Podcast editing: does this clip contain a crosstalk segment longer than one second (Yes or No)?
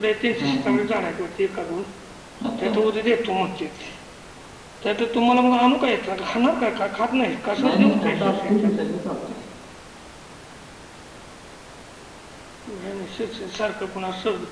Yes